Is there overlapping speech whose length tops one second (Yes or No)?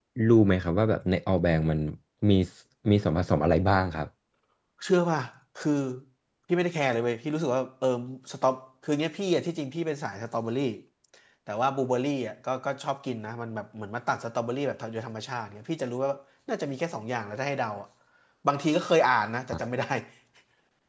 No